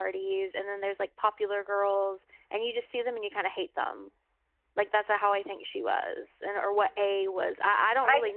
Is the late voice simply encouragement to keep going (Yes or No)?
No